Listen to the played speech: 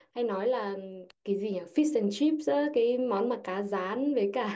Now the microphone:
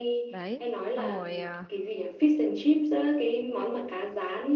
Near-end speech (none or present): present